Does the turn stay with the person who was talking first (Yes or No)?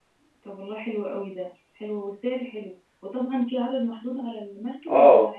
No